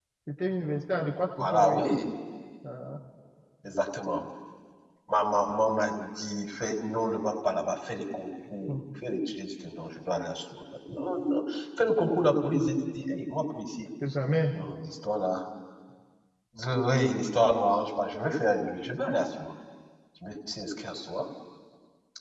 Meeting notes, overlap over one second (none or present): none